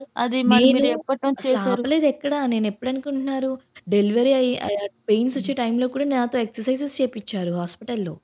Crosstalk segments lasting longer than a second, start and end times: none

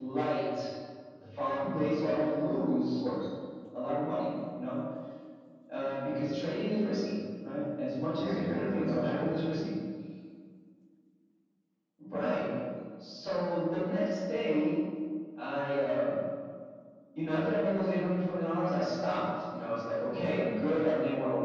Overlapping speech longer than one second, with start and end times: 8.2-9.5

